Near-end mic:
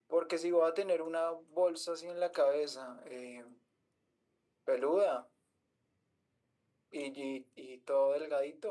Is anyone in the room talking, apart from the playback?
No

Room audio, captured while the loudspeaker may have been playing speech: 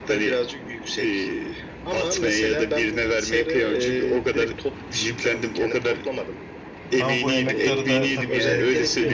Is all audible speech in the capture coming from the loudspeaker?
No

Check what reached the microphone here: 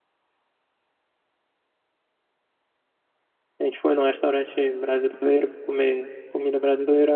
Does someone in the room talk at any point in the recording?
Yes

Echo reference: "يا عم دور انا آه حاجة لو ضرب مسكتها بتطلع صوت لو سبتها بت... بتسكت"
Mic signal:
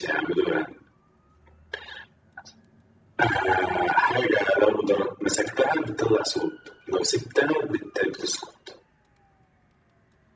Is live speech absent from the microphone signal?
Yes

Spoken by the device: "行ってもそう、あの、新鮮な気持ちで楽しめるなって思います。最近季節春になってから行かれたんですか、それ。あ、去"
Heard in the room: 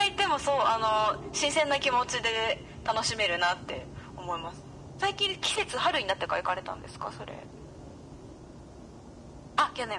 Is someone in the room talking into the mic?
No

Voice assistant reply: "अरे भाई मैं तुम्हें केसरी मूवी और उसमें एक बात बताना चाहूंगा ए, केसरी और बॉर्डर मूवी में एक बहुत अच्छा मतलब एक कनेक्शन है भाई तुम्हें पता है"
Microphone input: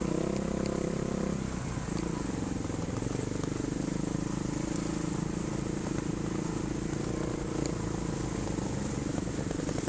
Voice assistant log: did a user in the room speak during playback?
No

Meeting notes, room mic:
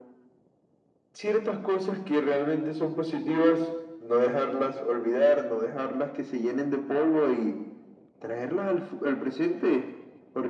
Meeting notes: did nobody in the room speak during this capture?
Yes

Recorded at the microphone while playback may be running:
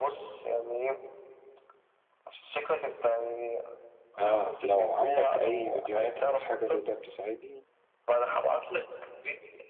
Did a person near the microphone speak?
Yes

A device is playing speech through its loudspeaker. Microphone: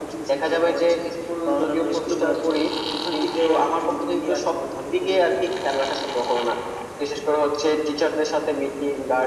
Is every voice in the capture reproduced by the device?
Yes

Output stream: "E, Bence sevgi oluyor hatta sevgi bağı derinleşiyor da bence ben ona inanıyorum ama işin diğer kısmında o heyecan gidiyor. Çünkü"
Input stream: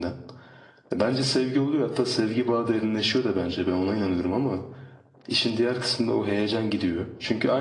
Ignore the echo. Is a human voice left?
No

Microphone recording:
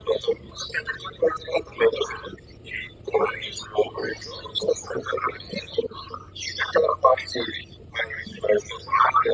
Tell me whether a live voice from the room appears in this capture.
No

